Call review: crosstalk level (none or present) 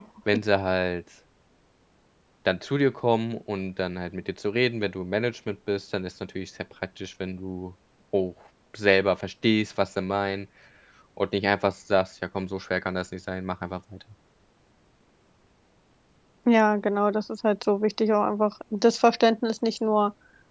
none